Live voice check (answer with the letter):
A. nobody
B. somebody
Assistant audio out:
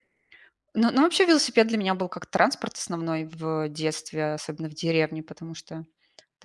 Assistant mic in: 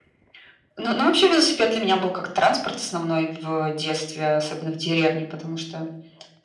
A